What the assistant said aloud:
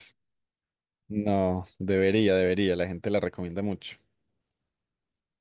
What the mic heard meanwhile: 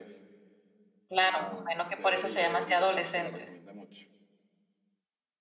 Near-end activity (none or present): present